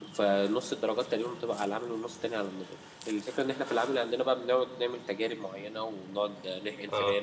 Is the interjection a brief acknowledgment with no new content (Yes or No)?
Yes